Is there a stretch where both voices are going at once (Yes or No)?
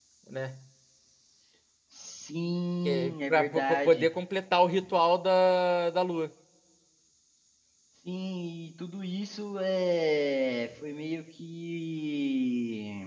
Yes